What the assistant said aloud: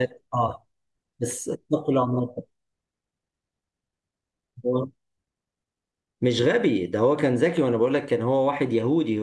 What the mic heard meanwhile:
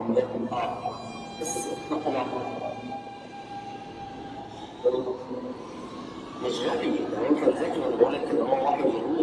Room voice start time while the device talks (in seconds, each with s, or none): none